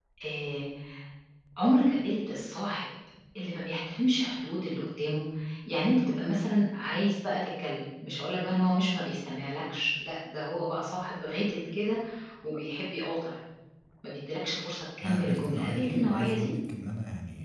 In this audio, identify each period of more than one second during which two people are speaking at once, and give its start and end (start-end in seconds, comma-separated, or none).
15.0-16.5